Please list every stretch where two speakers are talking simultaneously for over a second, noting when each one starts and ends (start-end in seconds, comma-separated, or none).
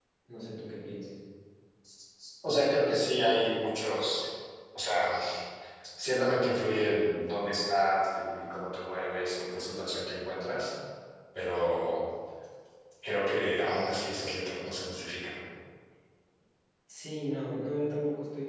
none